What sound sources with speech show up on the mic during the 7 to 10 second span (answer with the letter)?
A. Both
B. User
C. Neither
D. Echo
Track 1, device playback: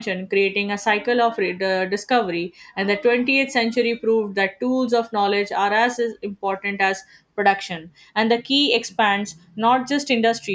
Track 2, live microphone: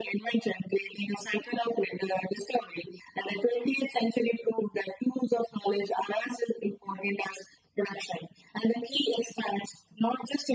D